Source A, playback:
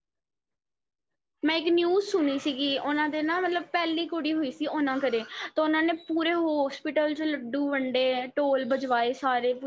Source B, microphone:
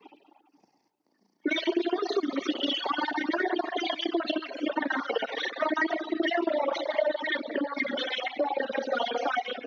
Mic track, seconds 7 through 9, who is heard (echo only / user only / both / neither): echo only